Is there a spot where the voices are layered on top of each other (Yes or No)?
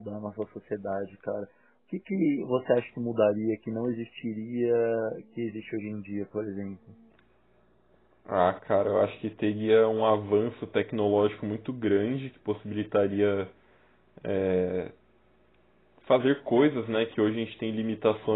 No